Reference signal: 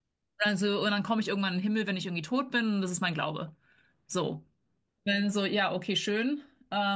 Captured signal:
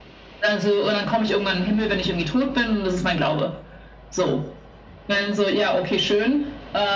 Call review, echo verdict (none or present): present